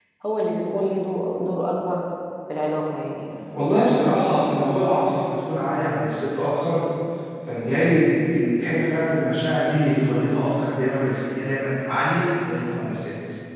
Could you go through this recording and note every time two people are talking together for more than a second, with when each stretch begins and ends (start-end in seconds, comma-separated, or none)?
none